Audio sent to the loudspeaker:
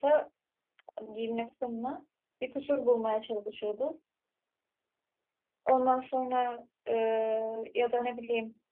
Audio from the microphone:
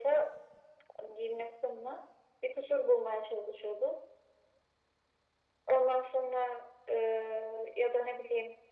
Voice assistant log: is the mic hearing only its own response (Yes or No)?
Yes